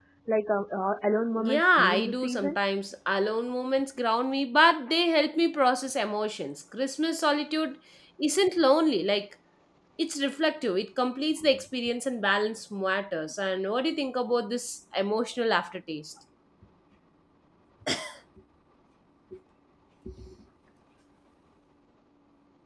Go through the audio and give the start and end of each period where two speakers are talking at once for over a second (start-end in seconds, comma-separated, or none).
1.4-2.6